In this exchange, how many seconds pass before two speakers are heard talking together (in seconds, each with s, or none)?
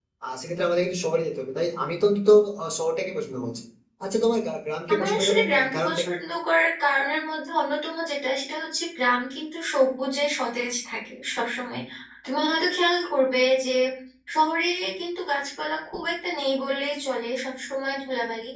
4.9 s